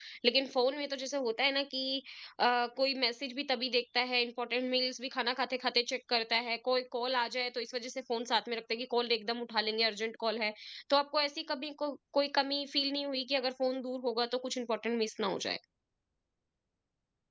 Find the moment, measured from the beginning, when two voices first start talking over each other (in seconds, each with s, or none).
none